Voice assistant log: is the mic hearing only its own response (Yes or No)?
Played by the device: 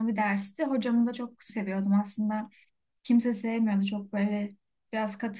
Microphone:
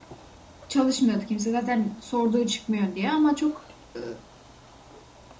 No